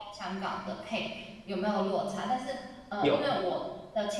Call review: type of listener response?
listening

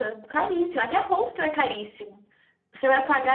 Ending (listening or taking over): listening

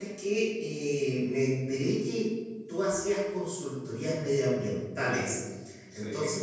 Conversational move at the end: listening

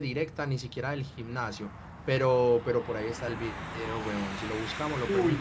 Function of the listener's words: taking over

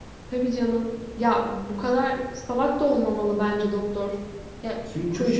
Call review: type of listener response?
taking over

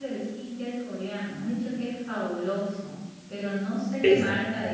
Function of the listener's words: listening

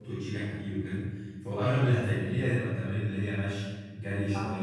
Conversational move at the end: listening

